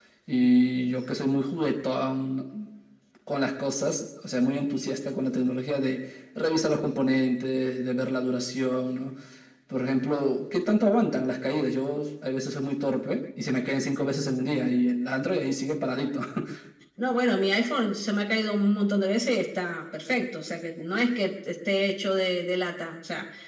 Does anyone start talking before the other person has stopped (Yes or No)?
No